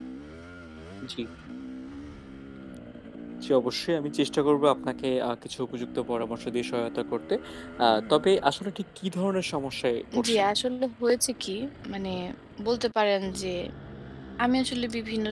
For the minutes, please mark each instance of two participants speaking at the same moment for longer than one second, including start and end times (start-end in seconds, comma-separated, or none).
none